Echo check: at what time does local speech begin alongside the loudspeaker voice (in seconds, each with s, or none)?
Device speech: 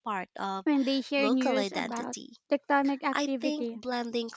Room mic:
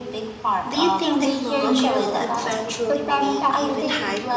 0.7 s